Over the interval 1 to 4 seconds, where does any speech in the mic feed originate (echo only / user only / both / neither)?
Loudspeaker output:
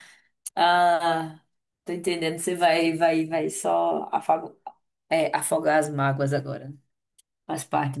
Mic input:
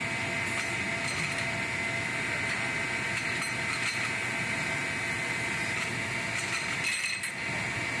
neither